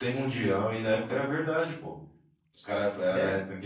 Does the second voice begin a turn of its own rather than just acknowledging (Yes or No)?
No